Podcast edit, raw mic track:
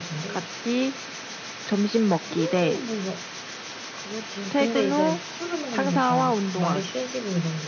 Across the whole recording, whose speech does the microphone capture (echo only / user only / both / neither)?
both